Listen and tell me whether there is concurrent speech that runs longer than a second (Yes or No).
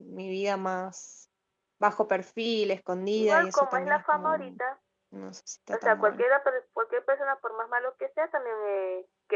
Yes